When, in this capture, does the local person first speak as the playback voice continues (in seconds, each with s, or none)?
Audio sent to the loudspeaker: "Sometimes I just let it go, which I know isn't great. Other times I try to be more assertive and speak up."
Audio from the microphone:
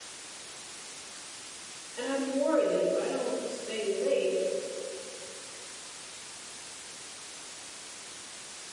2.0 s